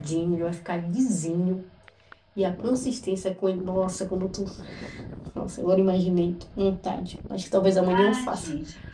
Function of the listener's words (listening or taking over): taking over